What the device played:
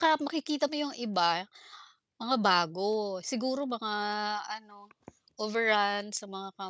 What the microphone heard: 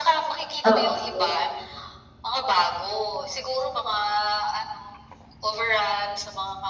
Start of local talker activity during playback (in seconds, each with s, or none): 0.6 s